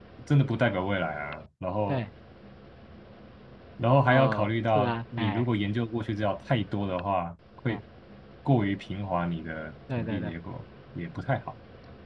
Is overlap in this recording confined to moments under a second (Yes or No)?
No